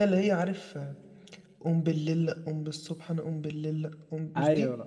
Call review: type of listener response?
taking over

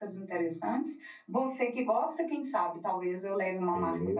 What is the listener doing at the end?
taking over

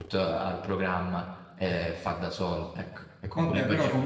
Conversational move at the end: taking over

